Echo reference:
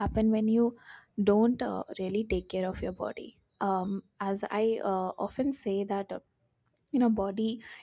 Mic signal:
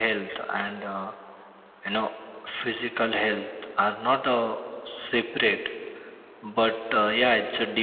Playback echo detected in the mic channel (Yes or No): No